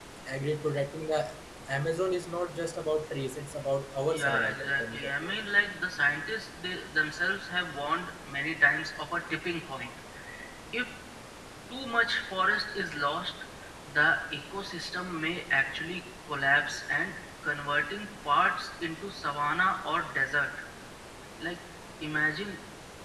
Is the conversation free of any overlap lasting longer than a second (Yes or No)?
No